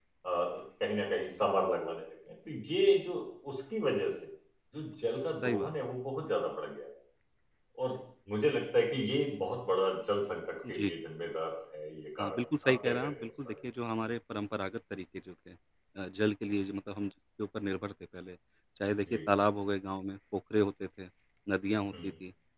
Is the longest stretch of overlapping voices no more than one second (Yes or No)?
No